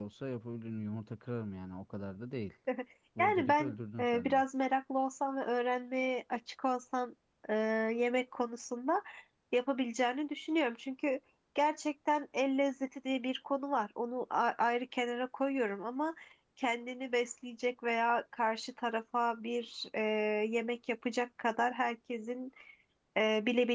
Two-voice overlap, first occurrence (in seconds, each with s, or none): 3.2 s